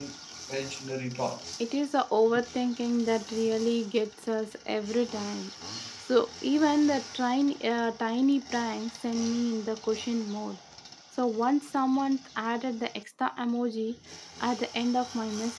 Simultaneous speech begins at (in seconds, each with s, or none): none